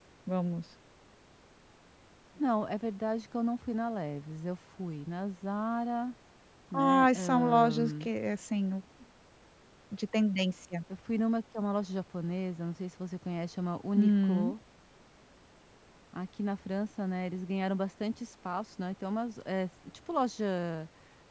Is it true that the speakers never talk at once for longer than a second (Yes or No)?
No